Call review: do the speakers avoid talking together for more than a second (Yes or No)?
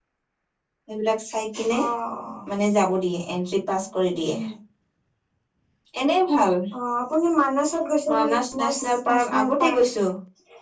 No